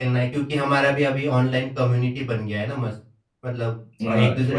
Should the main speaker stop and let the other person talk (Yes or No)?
No